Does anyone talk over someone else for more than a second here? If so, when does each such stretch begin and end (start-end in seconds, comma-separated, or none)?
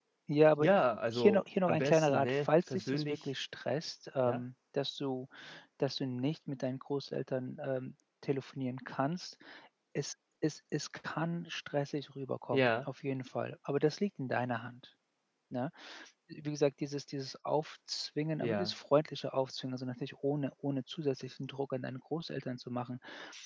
1.1-3.3